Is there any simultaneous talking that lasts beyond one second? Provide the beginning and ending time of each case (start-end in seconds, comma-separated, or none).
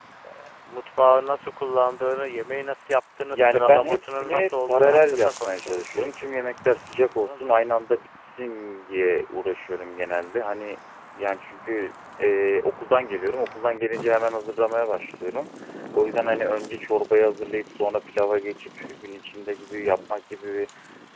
3.3-6.5